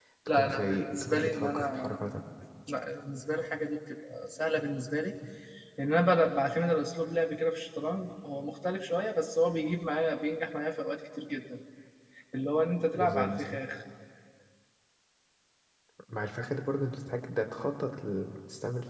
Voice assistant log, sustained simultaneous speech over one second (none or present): present